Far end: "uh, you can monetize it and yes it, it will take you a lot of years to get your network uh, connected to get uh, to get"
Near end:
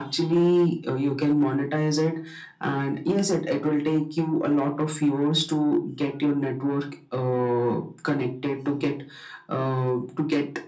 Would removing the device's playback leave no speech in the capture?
Yes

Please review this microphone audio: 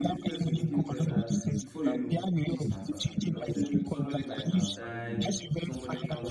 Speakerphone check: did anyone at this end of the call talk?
Yes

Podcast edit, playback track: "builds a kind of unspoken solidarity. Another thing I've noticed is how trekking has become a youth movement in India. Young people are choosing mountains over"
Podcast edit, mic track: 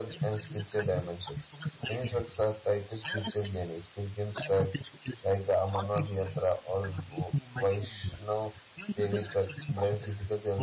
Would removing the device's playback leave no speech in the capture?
No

